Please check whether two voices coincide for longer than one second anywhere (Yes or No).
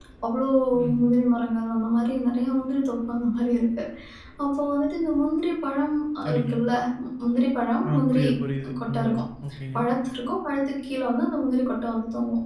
No